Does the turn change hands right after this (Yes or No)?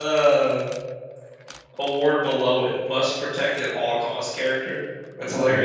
Yes